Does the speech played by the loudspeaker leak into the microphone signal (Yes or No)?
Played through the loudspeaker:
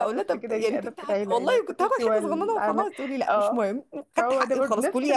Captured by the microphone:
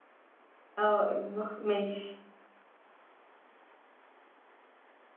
No